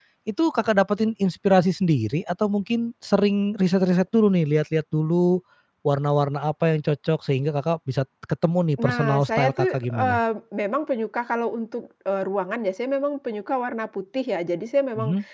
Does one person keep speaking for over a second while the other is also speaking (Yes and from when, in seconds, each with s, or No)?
Yes, from 8.8 s